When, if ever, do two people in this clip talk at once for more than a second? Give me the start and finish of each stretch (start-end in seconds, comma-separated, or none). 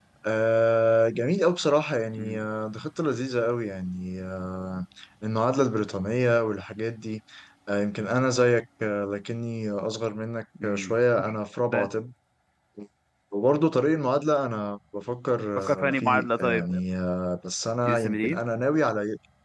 15.6-16.8